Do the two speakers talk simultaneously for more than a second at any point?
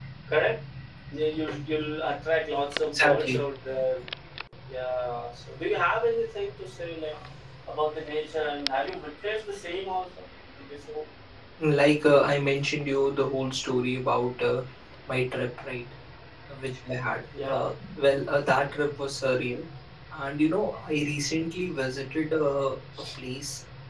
No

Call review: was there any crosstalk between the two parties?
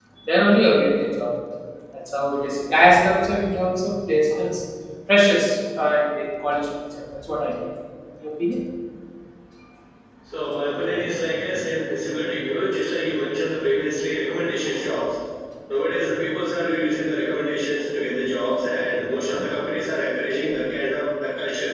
No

